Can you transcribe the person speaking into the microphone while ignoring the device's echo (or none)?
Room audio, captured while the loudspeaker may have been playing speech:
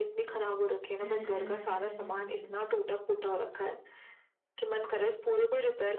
हम्म हम्म हम्म हम्म हम्म हम्म।